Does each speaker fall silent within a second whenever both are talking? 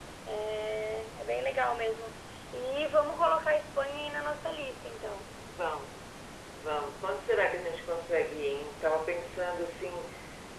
Yes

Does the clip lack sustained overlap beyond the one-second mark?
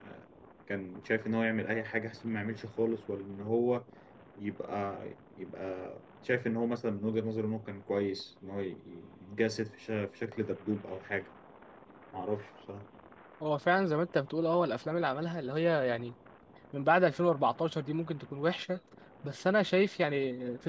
Yes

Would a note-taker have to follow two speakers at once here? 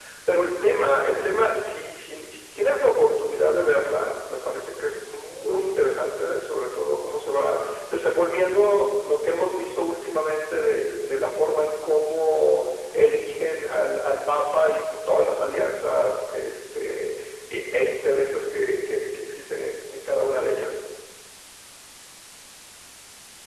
No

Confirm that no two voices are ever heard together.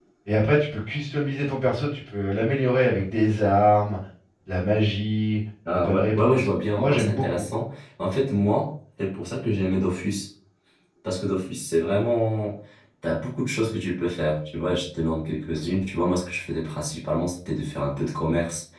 No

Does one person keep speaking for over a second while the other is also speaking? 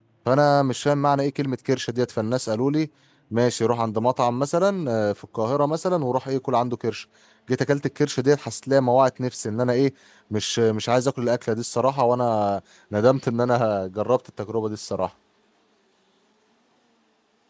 No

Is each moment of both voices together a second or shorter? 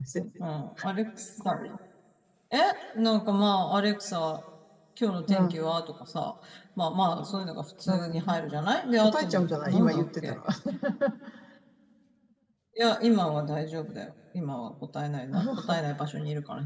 No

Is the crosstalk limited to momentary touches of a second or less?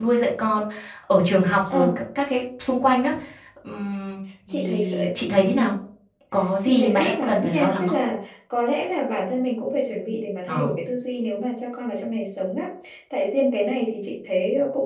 No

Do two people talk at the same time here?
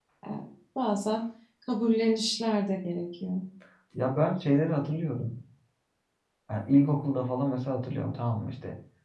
No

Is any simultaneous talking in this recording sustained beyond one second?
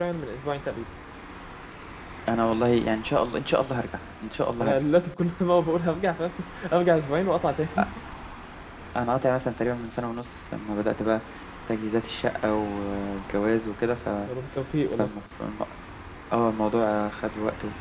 No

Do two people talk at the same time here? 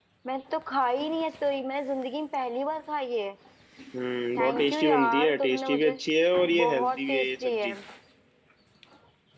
Yes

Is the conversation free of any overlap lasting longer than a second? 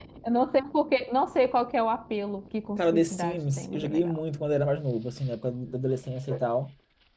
No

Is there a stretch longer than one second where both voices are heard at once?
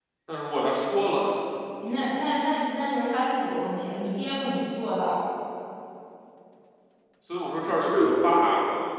No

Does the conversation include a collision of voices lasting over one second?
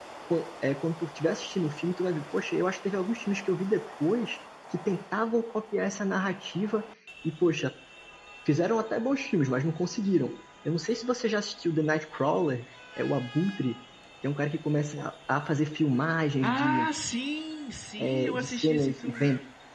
Yes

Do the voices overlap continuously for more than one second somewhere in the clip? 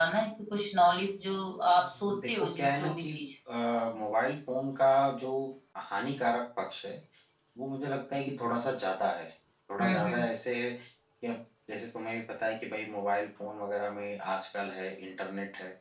Yes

